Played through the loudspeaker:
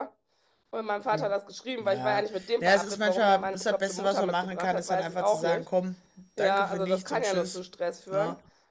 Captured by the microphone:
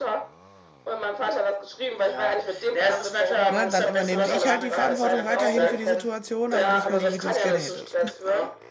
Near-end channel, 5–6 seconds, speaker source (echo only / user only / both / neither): both